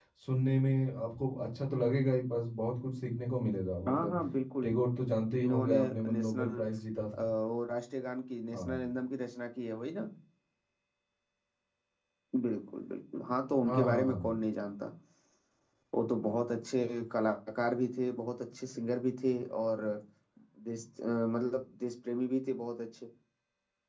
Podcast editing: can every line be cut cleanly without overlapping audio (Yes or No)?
No